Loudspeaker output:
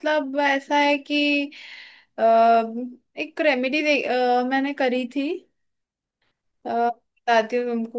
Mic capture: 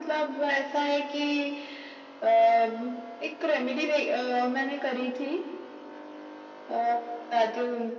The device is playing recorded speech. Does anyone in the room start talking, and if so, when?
none

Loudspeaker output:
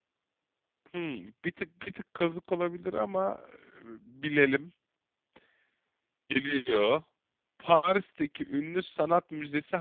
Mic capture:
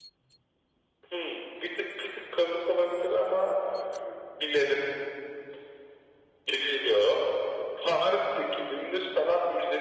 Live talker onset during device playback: none

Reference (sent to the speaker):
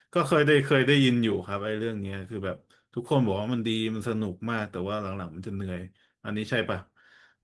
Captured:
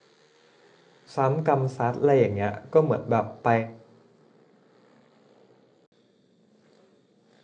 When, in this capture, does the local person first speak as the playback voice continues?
1.1 s

